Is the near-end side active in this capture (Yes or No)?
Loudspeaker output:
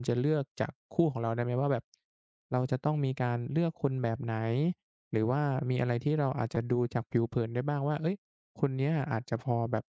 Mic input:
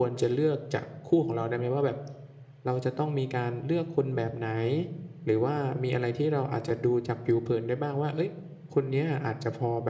No